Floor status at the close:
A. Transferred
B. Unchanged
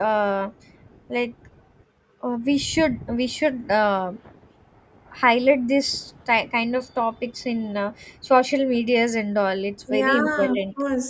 A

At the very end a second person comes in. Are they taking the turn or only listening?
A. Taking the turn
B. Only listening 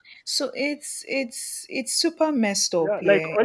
A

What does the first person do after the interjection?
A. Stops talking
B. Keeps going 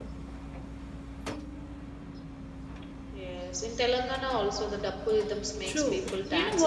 A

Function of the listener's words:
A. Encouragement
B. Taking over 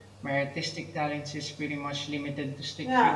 B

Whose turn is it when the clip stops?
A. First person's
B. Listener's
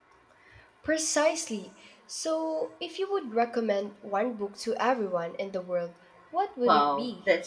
B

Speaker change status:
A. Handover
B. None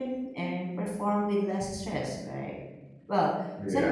B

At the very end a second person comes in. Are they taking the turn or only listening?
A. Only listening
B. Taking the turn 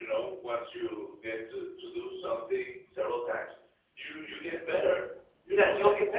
B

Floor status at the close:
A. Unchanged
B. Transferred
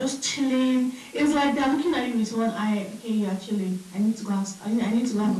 B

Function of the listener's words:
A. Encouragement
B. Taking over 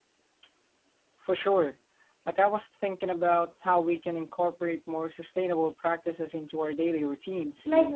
B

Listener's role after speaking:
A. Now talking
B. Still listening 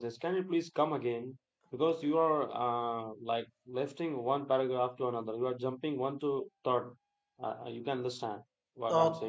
A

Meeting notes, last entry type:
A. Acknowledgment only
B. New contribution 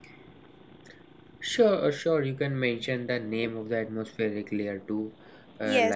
B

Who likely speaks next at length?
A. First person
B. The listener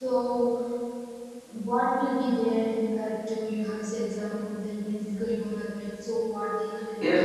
B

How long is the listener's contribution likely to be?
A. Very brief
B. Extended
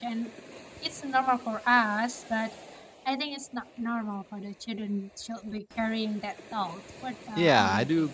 B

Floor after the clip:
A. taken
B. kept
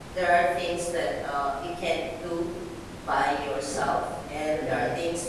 B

